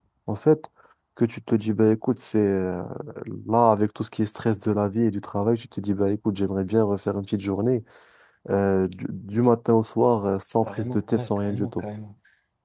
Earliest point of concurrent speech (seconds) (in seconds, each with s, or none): 10.6 s